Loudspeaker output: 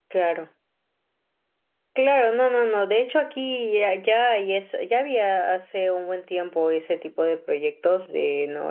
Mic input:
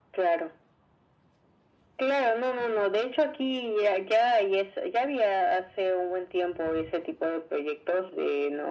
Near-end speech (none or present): none